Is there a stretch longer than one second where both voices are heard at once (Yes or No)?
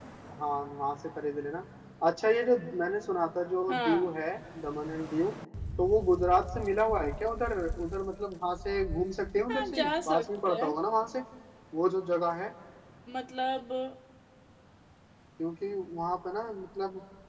Yes